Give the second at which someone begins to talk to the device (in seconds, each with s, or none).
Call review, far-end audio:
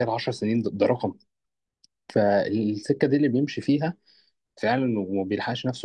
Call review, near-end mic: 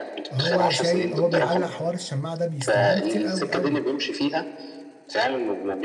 0.3 s